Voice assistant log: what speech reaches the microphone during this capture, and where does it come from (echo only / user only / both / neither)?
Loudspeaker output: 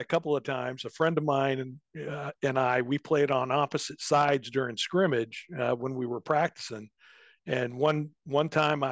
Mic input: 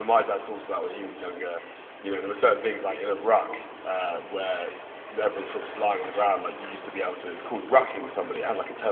user only